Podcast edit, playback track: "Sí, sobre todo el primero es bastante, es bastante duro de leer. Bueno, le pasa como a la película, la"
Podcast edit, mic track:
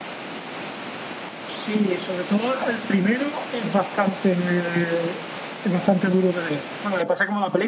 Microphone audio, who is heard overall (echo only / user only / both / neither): echo only